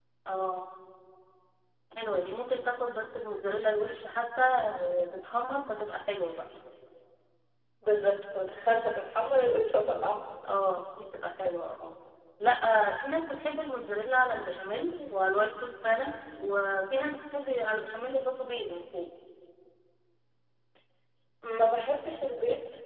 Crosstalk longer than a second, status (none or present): none